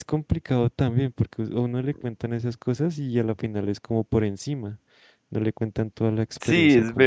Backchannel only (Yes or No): No